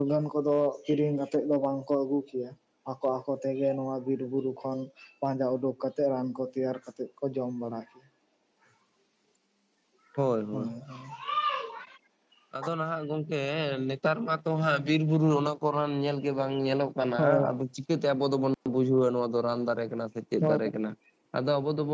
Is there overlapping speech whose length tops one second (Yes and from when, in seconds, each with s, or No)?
No